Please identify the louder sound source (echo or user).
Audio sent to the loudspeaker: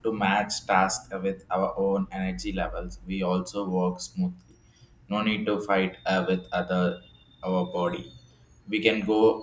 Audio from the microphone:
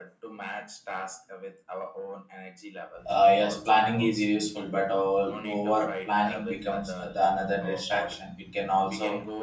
user